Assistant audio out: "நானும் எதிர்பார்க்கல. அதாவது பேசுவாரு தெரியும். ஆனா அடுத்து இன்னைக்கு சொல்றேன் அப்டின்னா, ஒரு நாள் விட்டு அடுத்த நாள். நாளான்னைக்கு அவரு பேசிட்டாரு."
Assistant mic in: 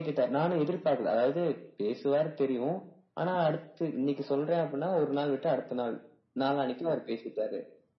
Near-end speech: none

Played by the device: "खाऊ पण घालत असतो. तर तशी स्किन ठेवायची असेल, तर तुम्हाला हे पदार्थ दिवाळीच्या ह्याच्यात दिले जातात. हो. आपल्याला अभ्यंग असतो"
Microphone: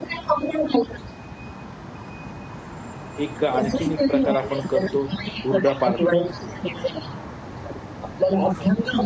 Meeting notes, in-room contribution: present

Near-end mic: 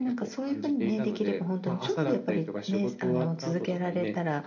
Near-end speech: none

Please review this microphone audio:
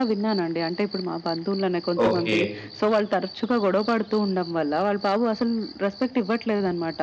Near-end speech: present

